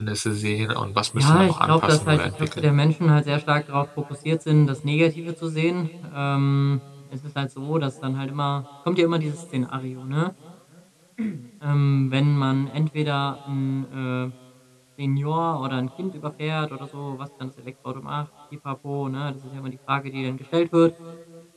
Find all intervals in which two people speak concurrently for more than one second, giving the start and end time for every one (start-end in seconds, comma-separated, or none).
1.2-2.6